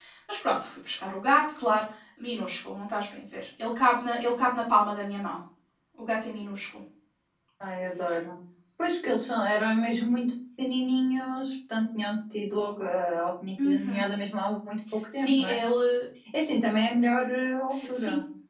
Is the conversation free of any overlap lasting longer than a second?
Yes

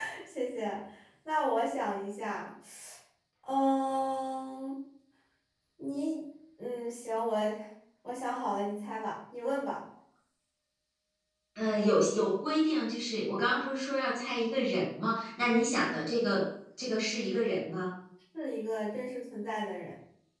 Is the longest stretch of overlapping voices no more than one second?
Yes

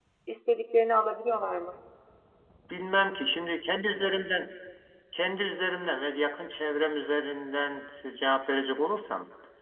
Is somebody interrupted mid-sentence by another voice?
No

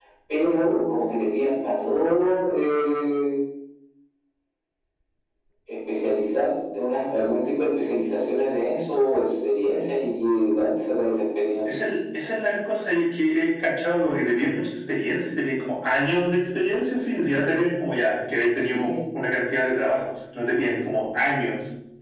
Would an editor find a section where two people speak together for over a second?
No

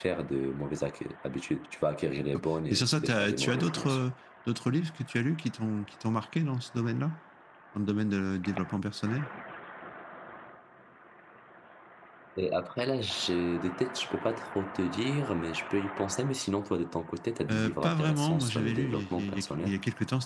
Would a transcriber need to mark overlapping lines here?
Yes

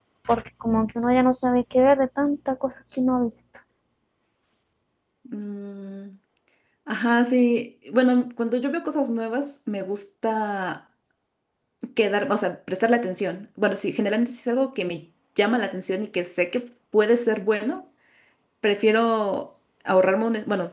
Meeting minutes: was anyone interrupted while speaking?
No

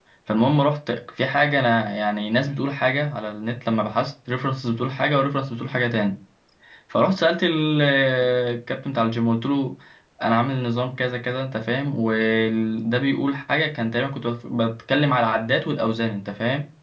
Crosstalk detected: No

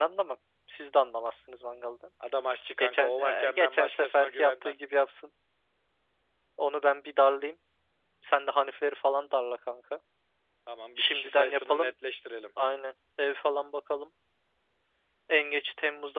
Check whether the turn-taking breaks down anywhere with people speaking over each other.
Yes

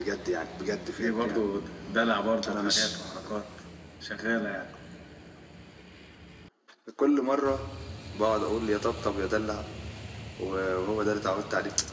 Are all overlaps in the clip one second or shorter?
Yes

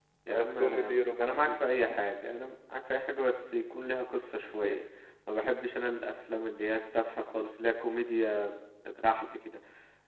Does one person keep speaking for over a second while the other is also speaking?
Yes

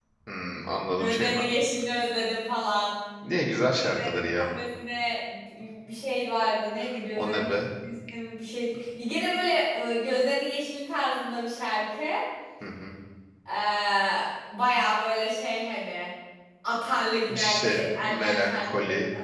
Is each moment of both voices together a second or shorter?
No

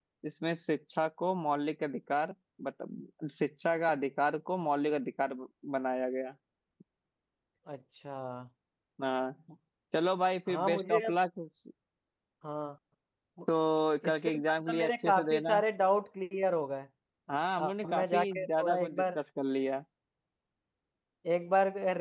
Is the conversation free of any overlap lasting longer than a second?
No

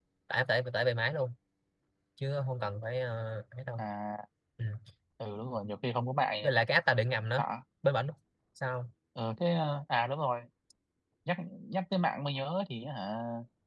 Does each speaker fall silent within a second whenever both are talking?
Yes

